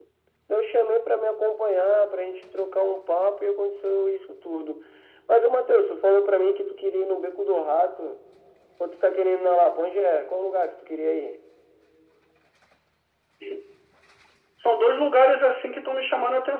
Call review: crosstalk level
none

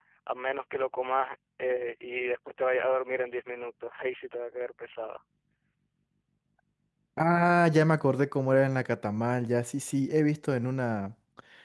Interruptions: none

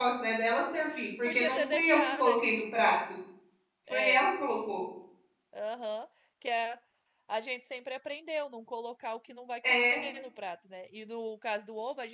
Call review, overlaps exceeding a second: present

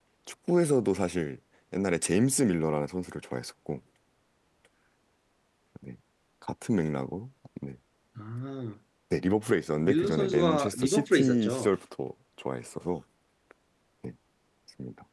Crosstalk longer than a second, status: present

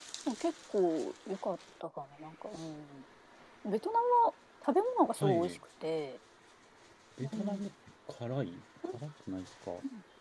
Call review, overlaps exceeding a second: none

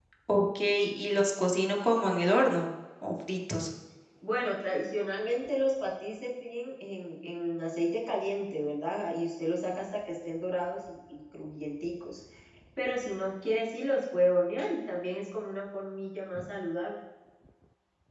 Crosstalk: none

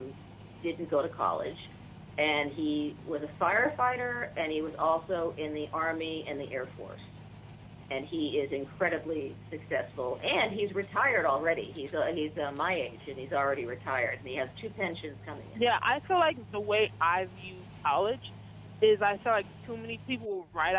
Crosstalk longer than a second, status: none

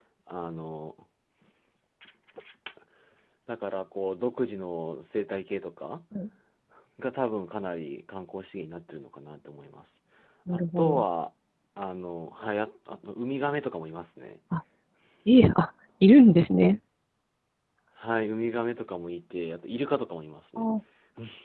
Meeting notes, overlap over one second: none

